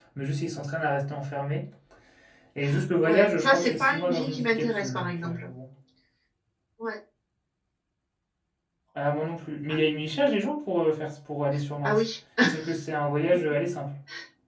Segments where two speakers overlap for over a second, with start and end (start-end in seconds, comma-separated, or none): 3.0-5.5